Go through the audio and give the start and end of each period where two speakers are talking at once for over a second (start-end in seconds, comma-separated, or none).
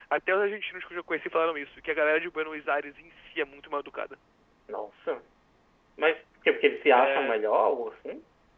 none